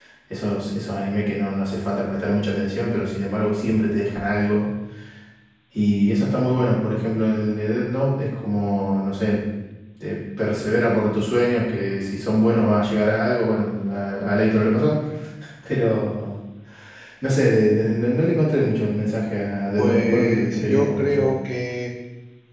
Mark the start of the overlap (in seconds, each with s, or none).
19.8 s